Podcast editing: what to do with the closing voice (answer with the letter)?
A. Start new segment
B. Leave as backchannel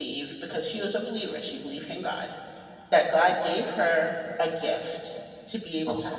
B